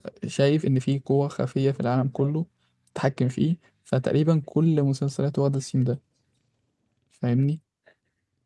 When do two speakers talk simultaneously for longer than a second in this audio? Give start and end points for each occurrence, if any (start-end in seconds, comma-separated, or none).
none